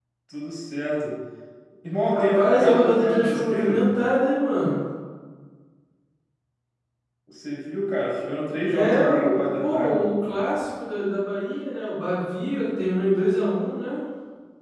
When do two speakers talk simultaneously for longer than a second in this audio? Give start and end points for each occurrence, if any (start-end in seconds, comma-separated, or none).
2.1-3.8, 8.7-10.0